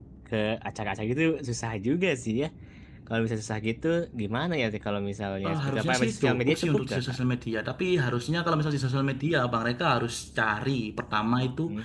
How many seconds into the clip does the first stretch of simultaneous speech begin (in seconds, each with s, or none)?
5.4 s